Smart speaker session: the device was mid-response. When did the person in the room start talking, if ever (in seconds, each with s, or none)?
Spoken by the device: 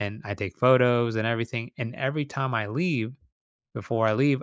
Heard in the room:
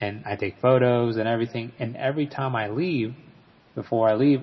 none